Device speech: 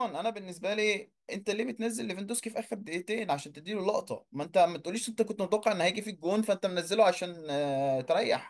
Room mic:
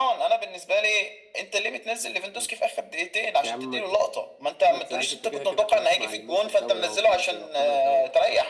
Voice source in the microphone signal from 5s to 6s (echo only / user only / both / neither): both